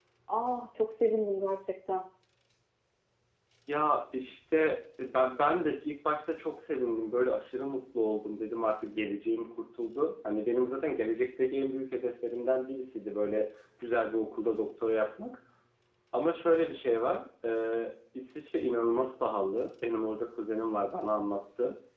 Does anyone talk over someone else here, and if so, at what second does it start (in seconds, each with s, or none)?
none